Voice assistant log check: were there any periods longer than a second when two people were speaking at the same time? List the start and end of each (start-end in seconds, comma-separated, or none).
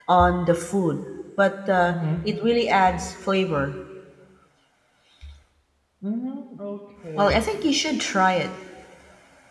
none